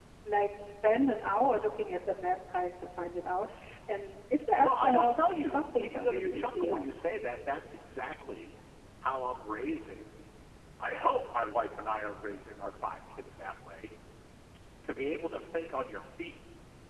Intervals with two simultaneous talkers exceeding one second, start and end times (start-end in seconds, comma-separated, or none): 4.6-6.8